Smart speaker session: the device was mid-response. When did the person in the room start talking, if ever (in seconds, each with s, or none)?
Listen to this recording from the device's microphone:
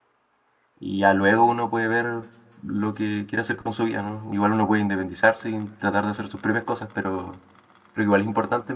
0.8 s